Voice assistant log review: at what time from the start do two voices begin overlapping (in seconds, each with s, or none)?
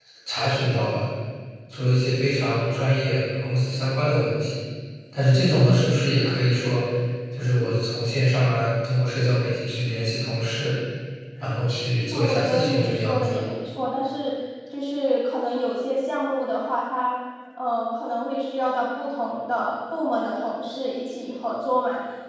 12.1 s